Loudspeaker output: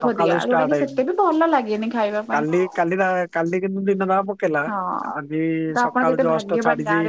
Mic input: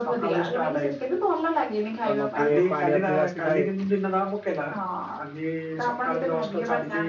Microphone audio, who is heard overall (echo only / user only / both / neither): both